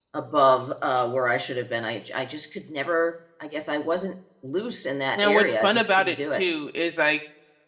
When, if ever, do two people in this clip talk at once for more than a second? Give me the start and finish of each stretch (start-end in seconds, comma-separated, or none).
5.2-6.4